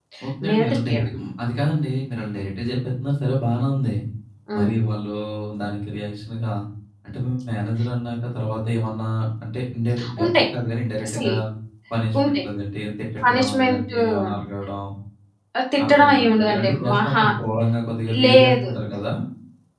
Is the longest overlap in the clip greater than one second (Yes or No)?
Yes